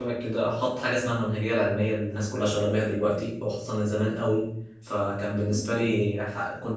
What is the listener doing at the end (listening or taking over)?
listening